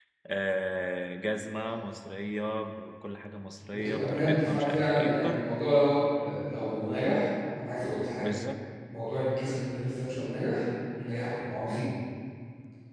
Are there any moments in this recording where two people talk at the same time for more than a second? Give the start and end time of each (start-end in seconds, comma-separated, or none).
3.7-5.4